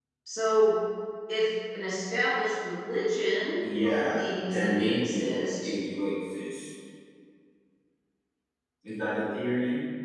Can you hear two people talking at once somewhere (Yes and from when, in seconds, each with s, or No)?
Yes, from 3.6 s